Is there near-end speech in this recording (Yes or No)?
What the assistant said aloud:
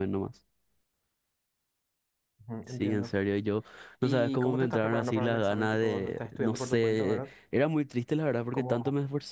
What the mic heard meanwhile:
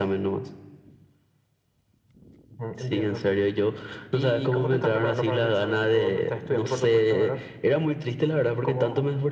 No